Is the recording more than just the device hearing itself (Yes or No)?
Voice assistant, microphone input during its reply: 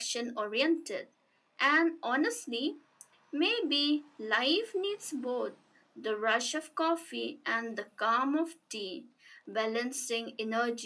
No